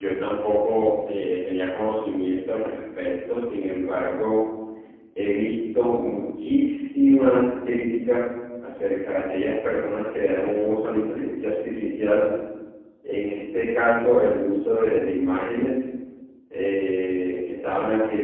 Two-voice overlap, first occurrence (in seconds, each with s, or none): none